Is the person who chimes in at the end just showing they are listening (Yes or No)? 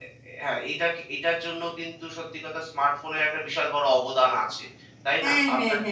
No